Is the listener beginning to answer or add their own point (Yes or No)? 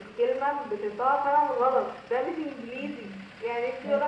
No